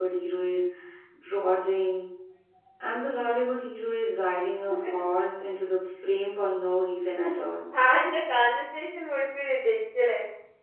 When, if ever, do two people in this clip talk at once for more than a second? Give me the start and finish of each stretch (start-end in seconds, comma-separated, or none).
none